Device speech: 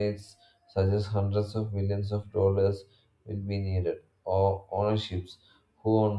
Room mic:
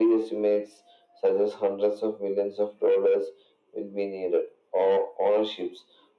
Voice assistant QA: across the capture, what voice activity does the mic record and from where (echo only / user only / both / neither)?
echo only